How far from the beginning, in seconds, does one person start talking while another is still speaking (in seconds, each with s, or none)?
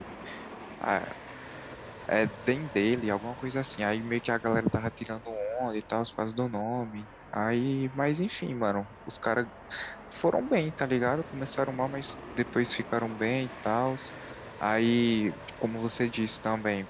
none